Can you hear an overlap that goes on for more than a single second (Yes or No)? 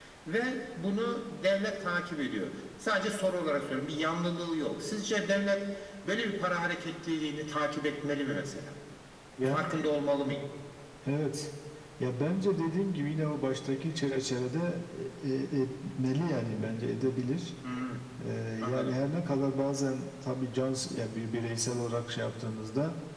No